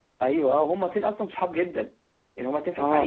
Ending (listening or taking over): taking over